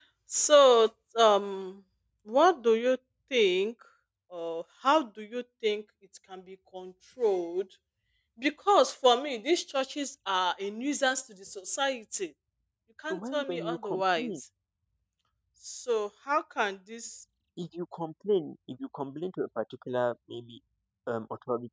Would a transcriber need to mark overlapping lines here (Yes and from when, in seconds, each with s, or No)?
Yes, from 13.1 s